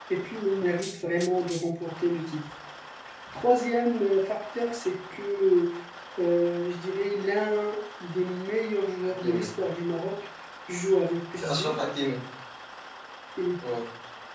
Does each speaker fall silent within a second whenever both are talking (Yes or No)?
Yes